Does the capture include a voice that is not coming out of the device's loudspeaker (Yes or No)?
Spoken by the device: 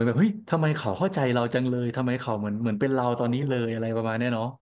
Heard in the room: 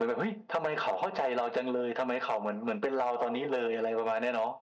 No